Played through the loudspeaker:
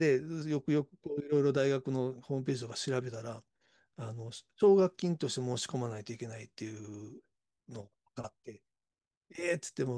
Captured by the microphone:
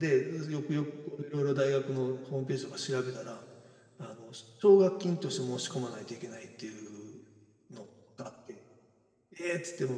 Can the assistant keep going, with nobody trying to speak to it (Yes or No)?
Yes